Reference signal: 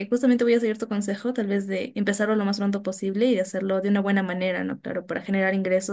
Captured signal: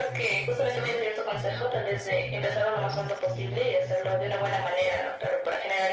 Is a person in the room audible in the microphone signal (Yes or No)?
Yes